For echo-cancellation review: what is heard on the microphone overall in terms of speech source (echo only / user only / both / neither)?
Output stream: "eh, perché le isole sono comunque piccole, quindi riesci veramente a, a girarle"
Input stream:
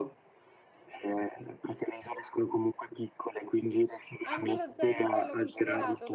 both